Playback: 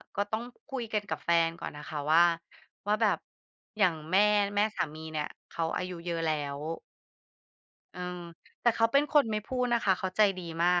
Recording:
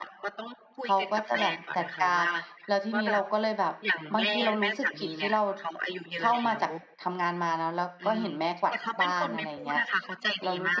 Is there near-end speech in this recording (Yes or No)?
Yes